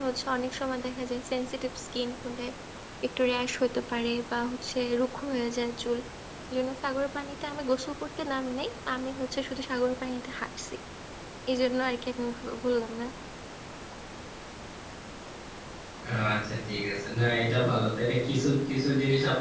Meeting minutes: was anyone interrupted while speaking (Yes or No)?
No